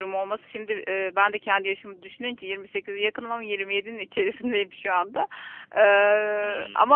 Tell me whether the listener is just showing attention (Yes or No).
Yes